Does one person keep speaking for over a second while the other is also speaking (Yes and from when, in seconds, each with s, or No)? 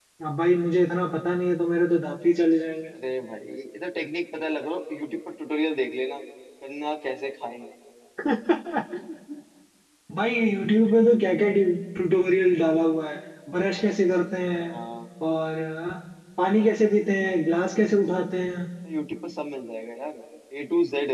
No